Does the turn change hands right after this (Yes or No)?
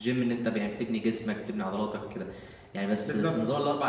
No